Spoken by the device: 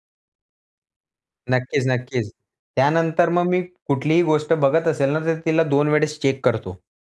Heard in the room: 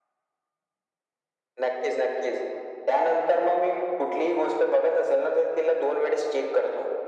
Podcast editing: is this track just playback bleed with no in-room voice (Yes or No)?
Yes